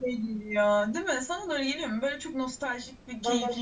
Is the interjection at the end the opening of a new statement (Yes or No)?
Yes